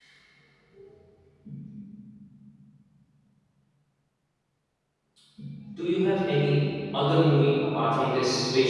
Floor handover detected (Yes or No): No